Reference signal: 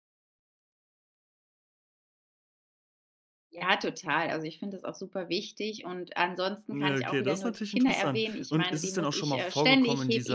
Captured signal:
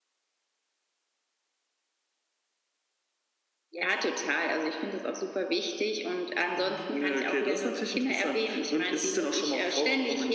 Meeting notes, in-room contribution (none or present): present